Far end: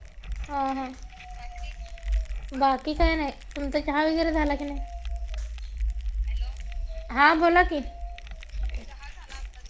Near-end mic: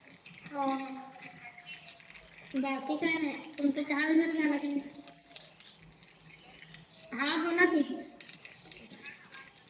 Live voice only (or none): none